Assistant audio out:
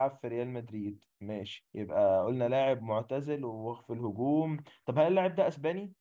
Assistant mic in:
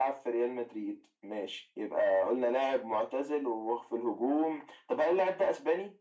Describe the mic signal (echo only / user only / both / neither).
echo only